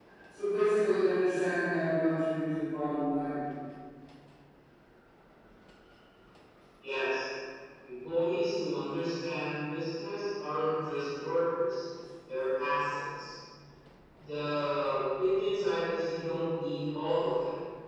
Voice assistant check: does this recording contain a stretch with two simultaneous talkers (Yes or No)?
No